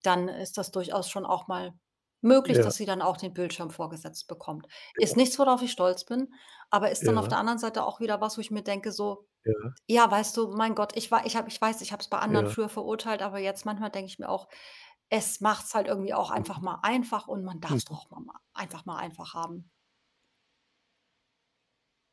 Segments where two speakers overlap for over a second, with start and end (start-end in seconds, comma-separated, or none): none